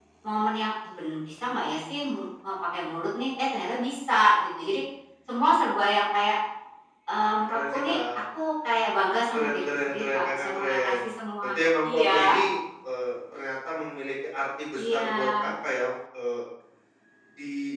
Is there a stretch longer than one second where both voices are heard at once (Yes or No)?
Yes